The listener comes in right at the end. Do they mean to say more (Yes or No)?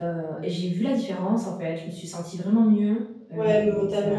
Yes